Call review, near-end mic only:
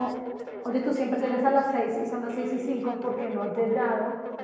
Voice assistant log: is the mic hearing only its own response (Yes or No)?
No